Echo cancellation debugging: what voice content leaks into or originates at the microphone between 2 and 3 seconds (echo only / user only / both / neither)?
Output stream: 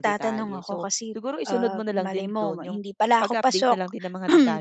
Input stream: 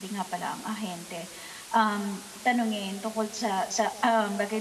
user only